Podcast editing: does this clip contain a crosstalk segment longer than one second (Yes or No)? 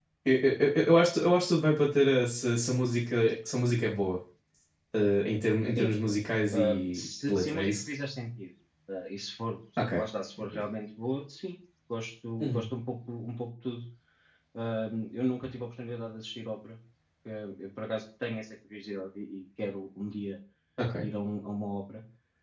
Yes